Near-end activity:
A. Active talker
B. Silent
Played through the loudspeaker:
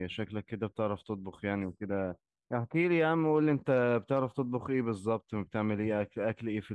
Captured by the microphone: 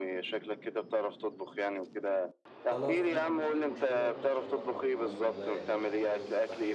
A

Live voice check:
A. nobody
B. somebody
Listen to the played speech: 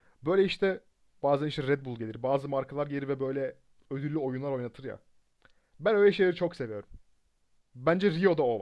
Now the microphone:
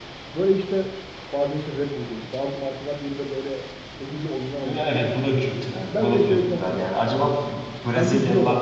B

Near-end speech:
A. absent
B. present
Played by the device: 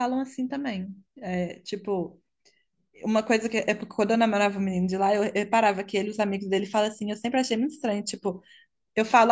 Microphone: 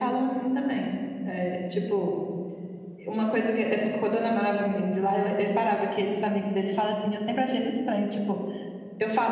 A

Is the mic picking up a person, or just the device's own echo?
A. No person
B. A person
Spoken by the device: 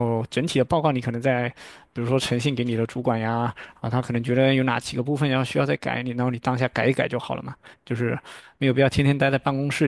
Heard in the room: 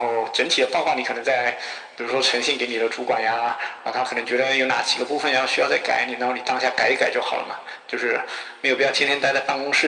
A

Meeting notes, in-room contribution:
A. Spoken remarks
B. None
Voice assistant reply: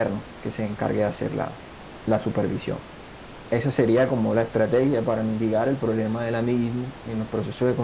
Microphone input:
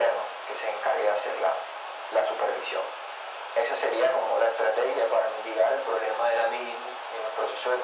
B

